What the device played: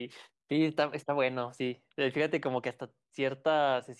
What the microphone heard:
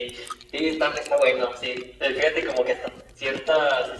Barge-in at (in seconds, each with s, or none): none